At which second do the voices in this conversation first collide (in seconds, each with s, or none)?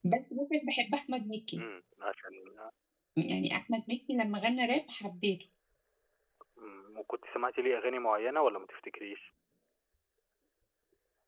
none